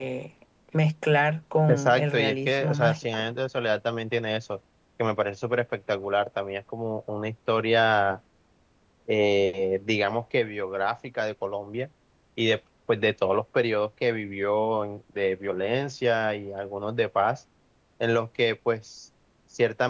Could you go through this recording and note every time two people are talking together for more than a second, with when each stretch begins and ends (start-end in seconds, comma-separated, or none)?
1.7-3.2